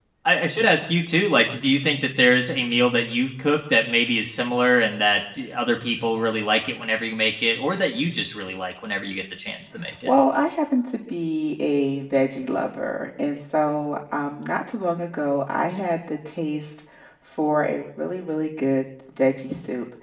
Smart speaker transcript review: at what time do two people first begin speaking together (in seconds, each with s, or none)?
none